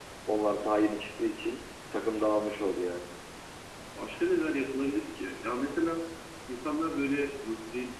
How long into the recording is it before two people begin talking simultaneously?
none

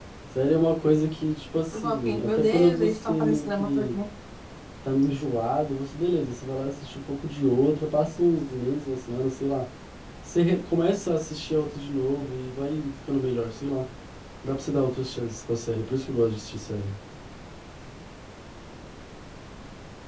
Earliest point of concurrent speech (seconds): 1.7 s

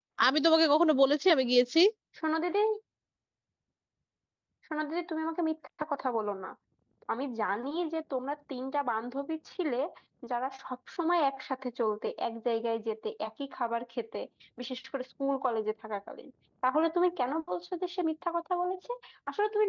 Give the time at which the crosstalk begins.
none

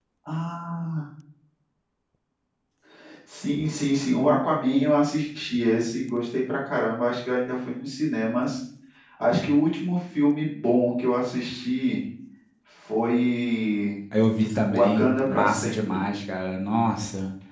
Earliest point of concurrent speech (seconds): 14.7 s

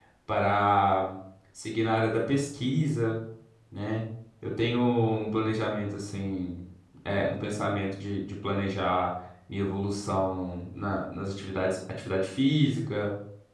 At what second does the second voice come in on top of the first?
none

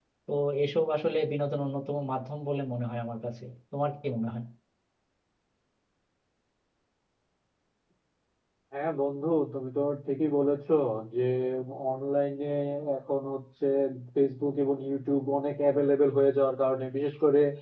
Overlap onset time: none

